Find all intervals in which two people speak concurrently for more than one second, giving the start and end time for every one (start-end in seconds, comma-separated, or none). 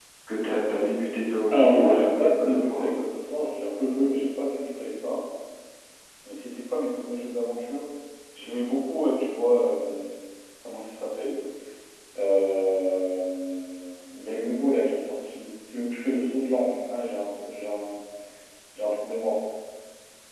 1.5-2.9